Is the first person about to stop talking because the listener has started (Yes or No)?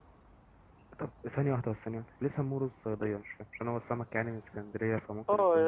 Yes